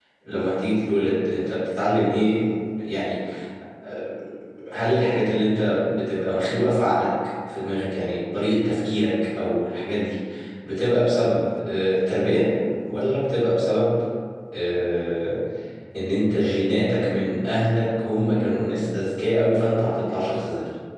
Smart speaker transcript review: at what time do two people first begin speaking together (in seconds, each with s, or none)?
none